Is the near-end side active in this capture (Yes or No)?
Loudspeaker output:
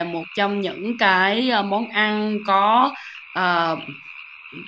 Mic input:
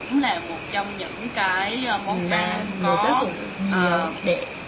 Yes